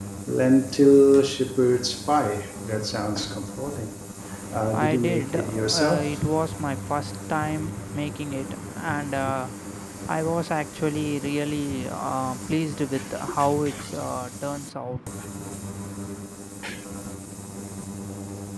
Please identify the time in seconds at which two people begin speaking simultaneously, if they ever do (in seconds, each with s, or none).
4.7 s